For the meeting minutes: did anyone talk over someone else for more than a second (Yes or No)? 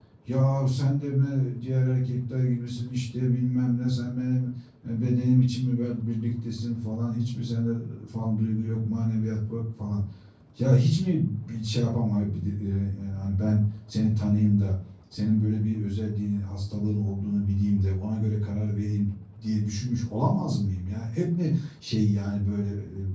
No